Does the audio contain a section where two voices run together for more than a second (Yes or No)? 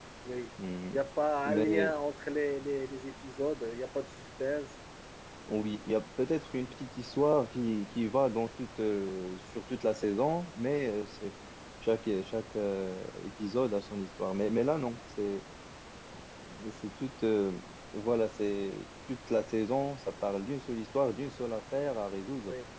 No